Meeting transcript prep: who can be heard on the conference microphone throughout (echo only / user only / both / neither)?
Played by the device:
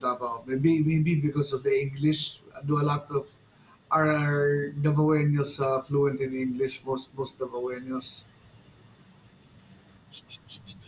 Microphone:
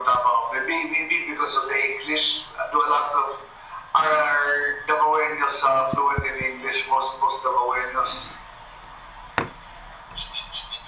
echo only